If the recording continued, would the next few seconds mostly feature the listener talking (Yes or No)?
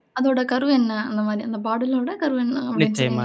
Yes